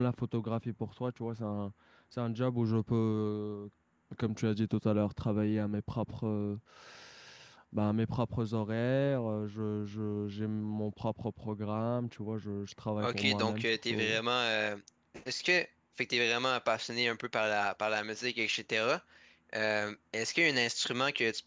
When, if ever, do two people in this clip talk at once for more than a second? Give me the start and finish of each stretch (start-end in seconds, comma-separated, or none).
13.0-14.2